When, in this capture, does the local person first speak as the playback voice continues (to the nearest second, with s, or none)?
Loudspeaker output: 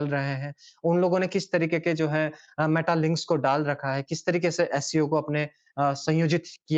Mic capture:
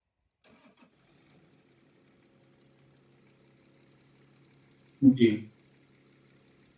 5 s